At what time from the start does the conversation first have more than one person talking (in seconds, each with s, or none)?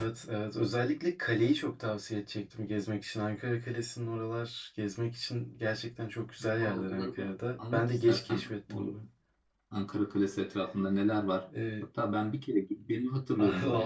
6.4 s